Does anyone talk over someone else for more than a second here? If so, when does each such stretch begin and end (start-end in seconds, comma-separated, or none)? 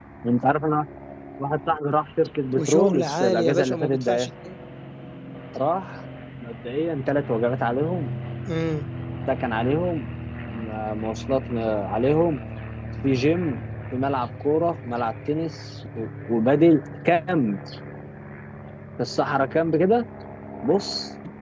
2.6-4.3